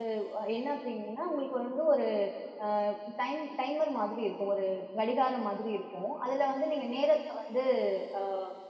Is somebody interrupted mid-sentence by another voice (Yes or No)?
No